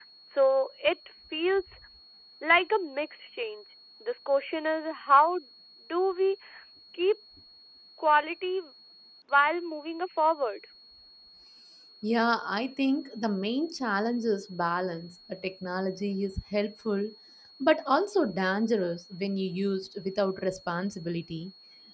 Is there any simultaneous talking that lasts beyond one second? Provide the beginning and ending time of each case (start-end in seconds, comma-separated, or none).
none